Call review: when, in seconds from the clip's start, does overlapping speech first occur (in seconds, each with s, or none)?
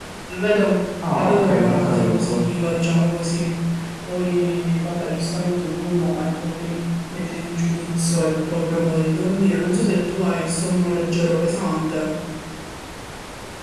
1.1 s